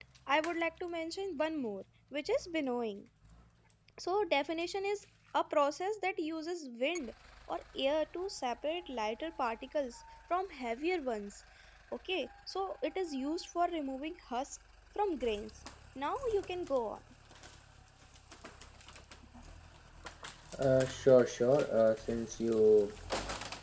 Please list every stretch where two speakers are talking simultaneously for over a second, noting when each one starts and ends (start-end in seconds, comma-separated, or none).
none